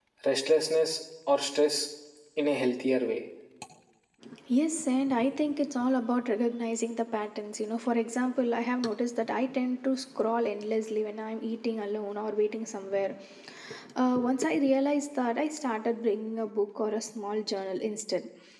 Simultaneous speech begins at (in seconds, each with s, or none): none